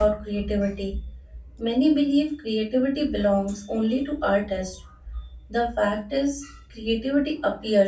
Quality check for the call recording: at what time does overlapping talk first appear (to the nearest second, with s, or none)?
none